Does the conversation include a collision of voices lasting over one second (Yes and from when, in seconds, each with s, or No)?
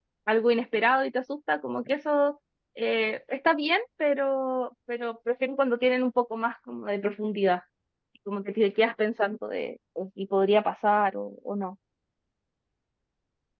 No